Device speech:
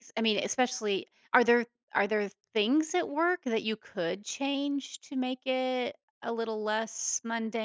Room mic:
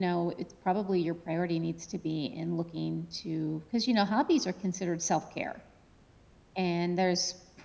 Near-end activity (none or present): present